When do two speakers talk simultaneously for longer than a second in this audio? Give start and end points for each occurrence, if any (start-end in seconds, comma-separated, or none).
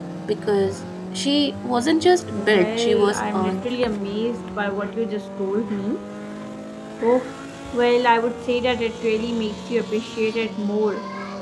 2.3-3.6